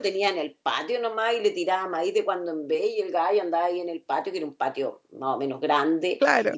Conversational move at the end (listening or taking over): listening